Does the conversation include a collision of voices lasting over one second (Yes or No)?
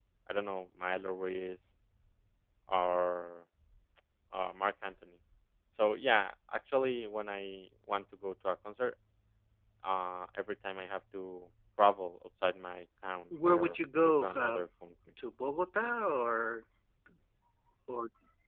Yes